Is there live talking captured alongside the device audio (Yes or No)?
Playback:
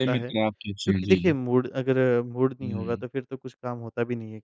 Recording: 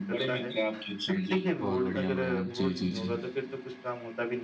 Yes